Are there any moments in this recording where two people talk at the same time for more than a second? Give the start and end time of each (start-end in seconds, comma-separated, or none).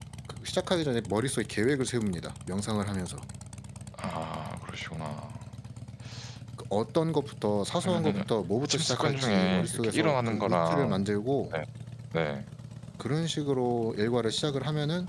8.6-11.0